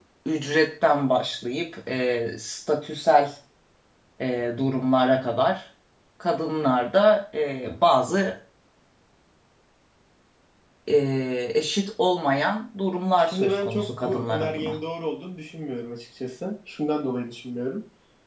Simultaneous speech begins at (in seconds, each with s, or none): 13.2 s